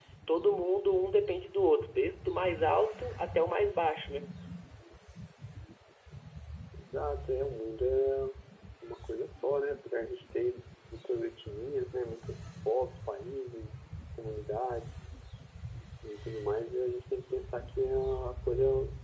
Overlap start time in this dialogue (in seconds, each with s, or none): none